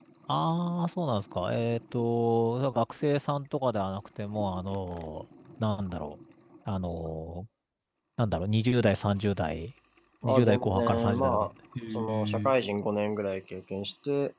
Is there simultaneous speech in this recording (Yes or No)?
Yes